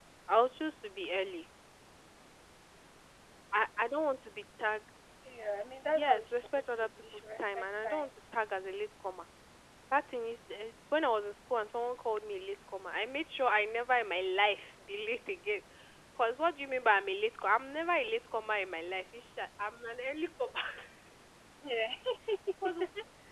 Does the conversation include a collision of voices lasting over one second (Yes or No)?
Yes